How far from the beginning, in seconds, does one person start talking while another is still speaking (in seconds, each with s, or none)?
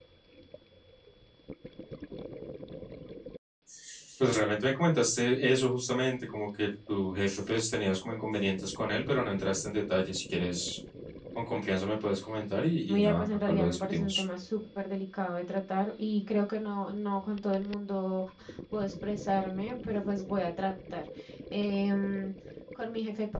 12.9 s